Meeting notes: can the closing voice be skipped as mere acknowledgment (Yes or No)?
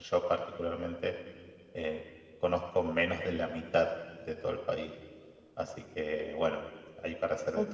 No